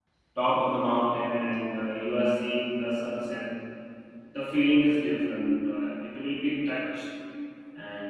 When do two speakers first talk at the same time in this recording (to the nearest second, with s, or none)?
none